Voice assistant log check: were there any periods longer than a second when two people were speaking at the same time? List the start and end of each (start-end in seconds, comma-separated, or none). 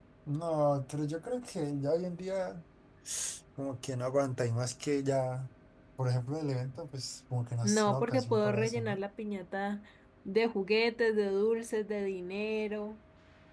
7.6-9.0